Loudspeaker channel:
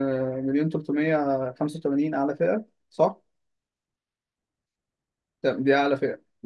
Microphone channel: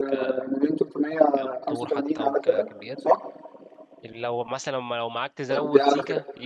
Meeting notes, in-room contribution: present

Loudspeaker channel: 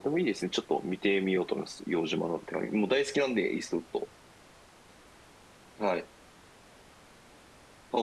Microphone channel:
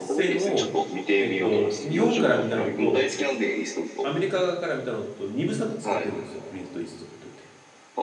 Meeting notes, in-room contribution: present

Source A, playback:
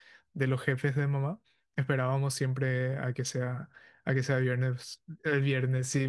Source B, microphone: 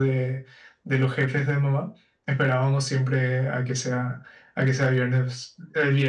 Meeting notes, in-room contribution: none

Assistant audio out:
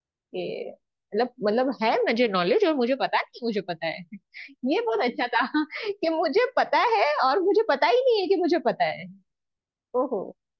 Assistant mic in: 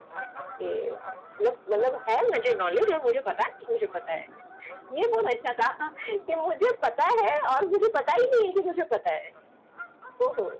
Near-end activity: none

